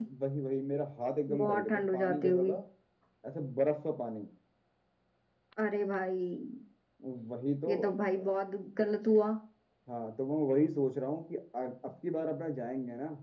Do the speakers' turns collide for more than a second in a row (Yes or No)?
Yes